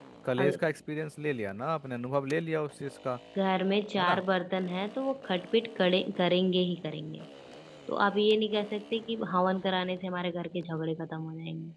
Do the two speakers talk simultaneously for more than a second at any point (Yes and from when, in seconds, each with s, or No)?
No